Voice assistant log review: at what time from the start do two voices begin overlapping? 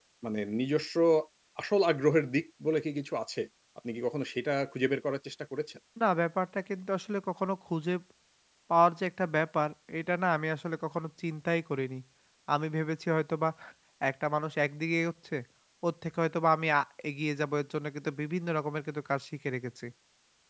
none

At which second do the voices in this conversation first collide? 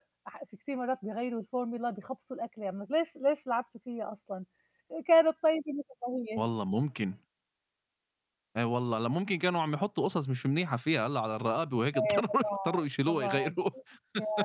11.9 s

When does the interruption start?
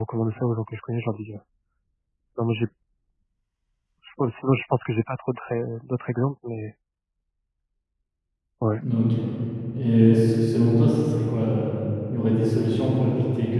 none

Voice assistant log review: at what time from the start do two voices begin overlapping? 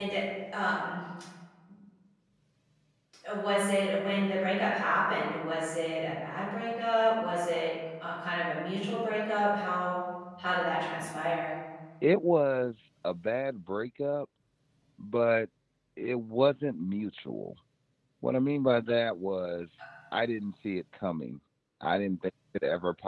none

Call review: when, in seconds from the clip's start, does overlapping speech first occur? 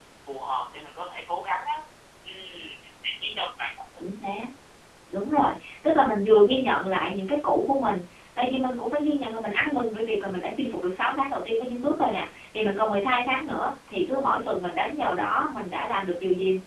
none

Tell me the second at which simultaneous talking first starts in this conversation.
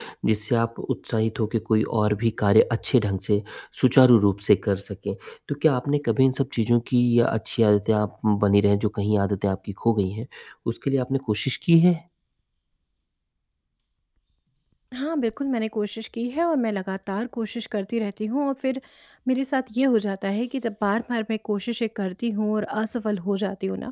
none

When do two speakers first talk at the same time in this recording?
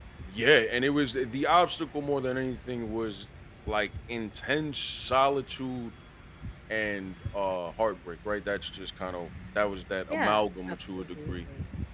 10.1 s

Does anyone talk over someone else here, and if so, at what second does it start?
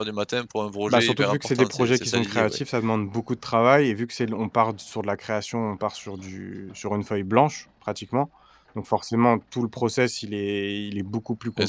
0.9 s

